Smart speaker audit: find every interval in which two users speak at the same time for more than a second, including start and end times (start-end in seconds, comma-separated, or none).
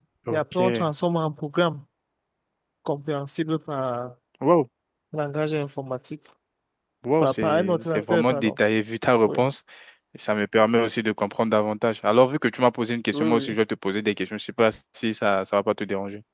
7.2-8.5